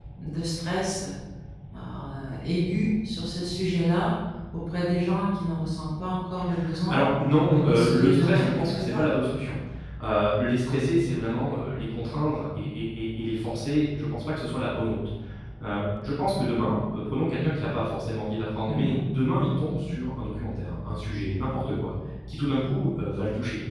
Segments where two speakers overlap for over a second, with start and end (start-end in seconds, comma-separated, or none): 7.5-9.1